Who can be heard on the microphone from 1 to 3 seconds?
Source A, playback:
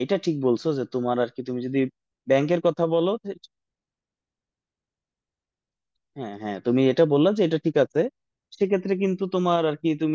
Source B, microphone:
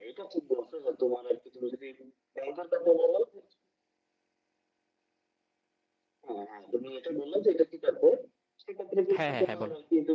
echo only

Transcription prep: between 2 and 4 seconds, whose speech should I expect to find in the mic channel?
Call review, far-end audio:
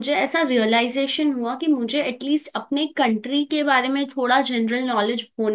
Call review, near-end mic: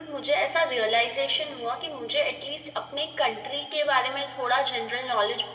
echo only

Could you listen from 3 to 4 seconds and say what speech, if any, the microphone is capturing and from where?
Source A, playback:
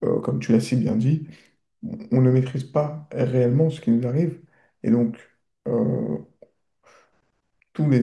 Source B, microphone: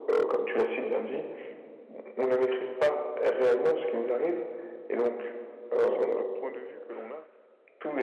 echo only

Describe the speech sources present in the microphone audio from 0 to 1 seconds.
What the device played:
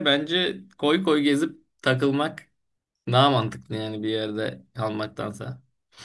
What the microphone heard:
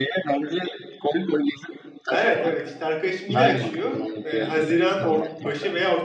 echo only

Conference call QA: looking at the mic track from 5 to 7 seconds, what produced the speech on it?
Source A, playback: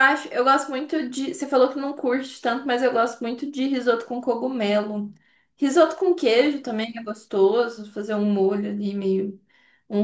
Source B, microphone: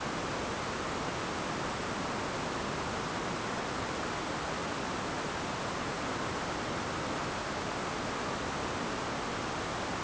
neither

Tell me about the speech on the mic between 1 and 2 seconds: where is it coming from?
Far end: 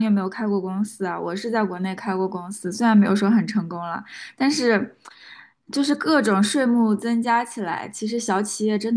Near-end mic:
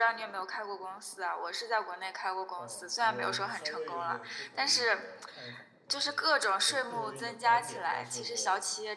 echo only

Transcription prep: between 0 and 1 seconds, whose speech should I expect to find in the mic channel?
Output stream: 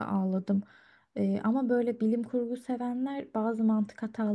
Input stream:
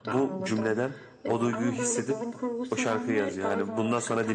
both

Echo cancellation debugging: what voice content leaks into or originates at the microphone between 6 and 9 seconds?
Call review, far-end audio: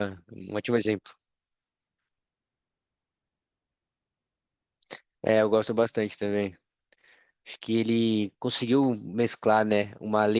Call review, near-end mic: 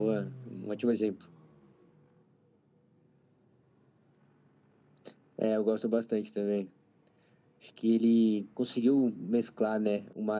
echo only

